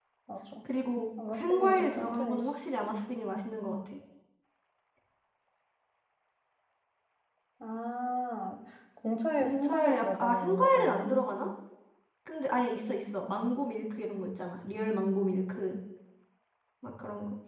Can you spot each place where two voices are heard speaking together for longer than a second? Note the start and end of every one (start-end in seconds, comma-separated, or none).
1.3-2.6, 9.4-11.1